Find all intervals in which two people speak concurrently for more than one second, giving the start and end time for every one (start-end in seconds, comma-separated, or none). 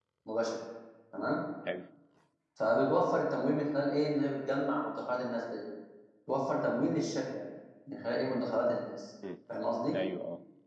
none